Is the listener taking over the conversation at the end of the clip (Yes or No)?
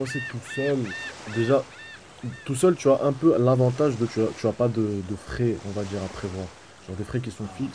No